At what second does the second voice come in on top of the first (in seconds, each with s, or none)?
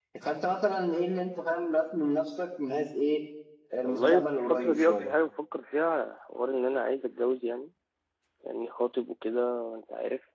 3.8 s